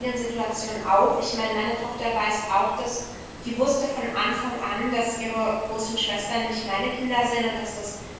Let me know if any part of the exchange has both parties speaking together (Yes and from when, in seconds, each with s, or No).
No